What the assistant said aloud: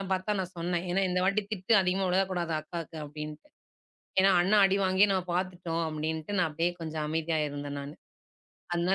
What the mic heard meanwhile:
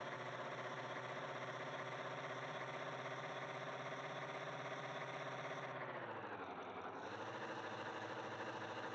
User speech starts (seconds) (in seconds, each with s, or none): none